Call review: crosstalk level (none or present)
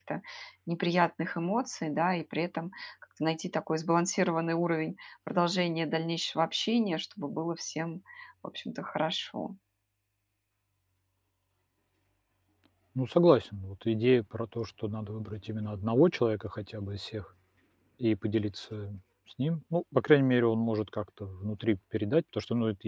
none